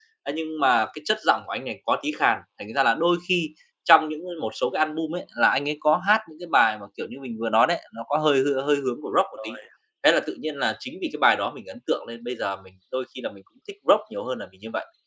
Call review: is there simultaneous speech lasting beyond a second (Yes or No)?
No